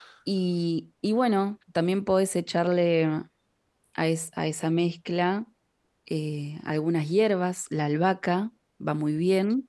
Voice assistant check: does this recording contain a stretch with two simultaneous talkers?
No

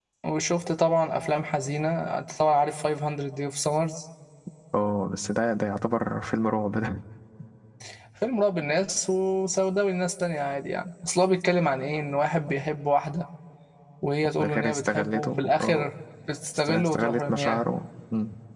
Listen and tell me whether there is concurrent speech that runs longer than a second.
Yes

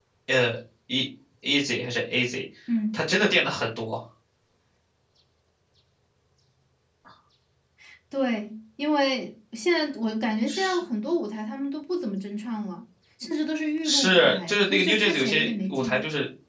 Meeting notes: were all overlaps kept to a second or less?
No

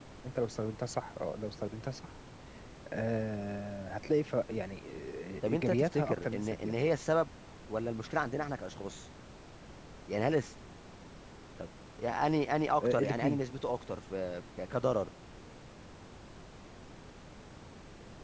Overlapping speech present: Yes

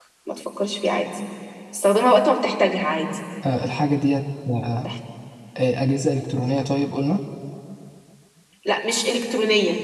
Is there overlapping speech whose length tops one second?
No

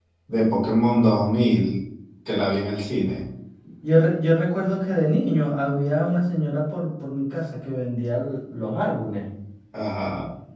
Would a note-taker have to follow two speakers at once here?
No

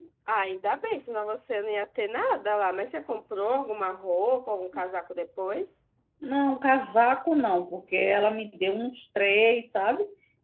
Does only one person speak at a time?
Yes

